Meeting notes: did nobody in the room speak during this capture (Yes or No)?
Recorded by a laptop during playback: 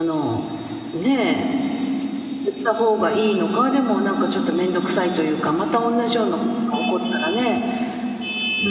No